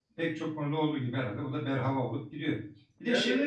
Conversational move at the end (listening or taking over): listening